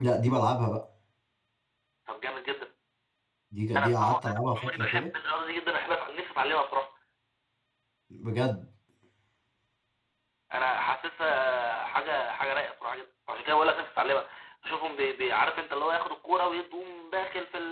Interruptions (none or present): present